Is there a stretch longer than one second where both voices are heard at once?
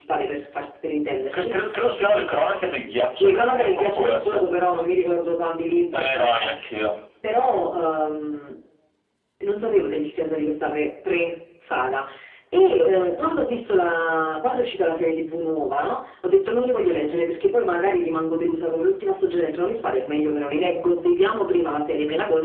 Yes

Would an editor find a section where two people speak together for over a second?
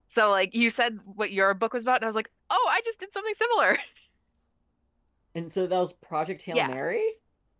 No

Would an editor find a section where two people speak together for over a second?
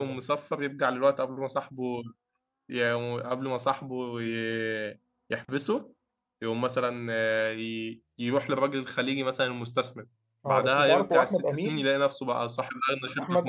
Yes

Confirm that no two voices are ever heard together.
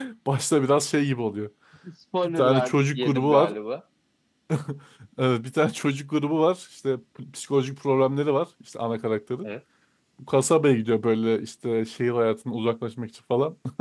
No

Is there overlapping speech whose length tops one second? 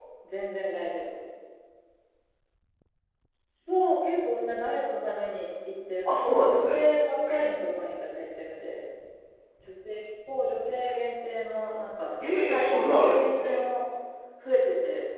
Yes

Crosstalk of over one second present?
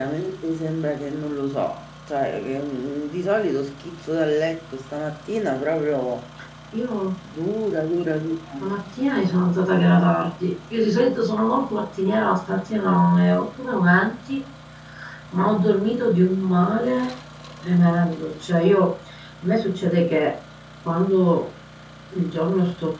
No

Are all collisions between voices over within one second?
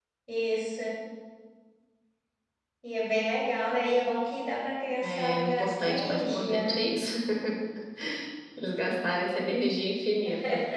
No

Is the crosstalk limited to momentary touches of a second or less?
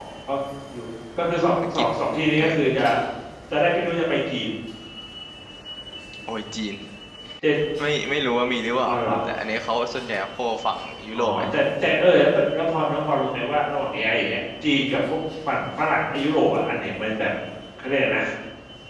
Yes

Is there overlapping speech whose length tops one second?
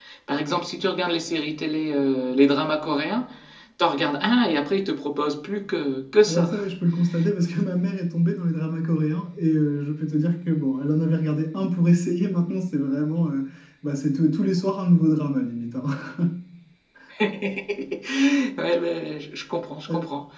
No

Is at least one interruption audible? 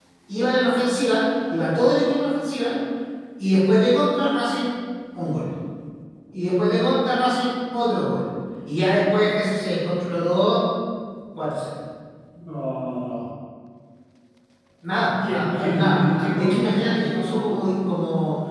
Yes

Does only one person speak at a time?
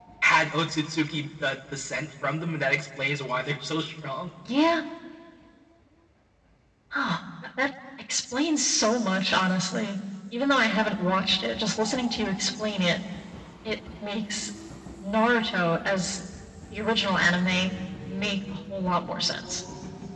Yes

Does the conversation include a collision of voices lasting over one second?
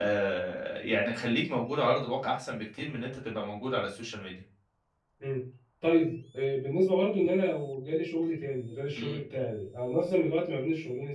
No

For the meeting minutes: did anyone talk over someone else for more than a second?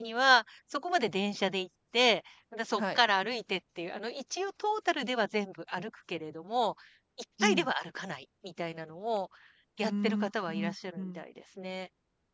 Yes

